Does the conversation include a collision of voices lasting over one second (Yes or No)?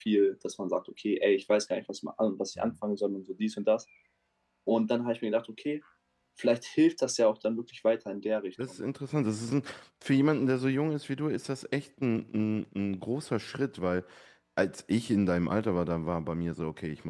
No